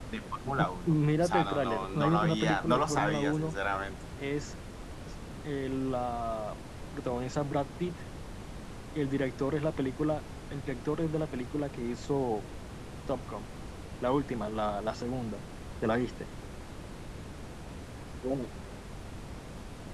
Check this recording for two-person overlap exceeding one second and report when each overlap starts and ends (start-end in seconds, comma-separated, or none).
0.9-3.5